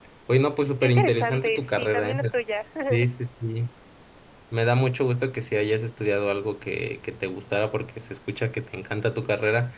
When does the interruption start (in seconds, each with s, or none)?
0.8 s